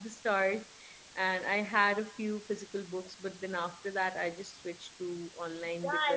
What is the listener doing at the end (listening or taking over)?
taking over